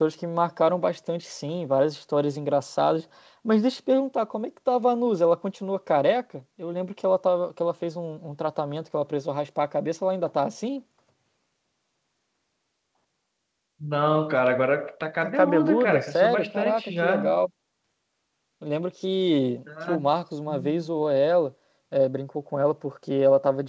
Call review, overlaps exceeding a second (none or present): present